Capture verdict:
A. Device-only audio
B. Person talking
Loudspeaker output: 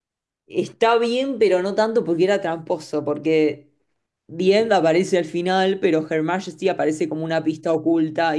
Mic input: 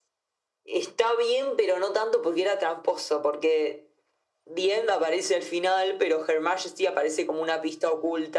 A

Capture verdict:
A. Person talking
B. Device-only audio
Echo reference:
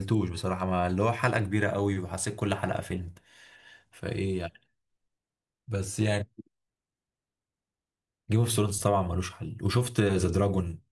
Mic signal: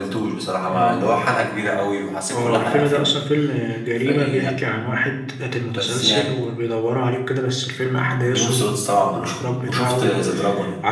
A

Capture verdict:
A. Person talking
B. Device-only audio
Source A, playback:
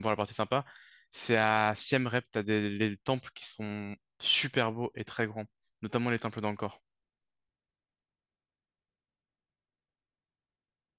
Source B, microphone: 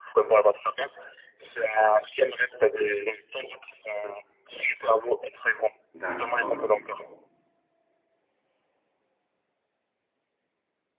A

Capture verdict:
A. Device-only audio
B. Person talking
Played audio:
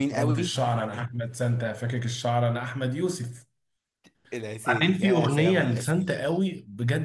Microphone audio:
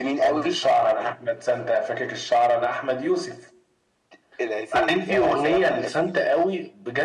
A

